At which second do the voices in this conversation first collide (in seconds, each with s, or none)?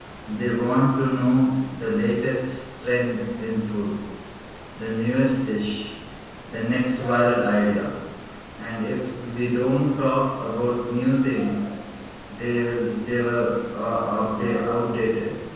none